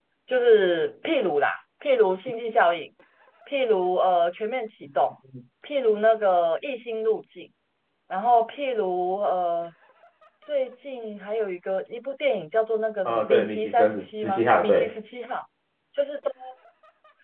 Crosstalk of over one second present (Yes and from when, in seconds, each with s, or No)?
Yes, from 13.1 s